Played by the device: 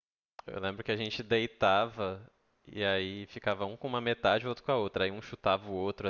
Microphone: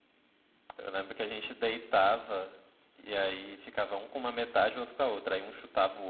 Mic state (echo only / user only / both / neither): echo only